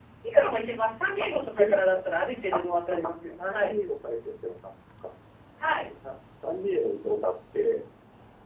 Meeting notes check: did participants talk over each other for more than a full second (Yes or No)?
Yes